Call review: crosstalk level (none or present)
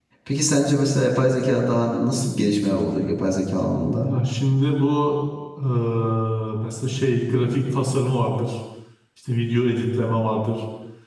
none